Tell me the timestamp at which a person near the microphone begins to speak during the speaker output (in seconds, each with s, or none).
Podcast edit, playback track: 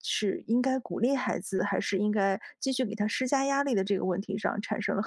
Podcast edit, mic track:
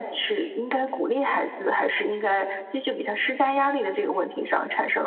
none